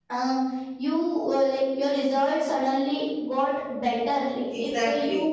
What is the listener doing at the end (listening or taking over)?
listening